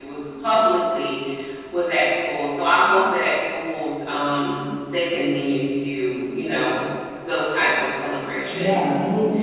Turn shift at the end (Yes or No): Yes